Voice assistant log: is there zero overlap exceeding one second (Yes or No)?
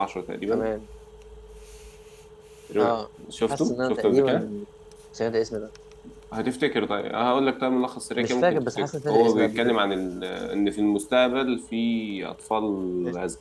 No